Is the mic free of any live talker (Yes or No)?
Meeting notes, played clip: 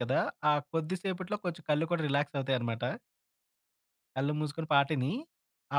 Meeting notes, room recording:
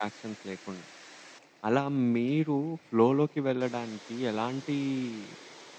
No